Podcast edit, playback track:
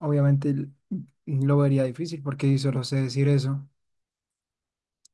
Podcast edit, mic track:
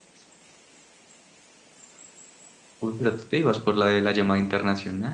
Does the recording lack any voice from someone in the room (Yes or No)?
No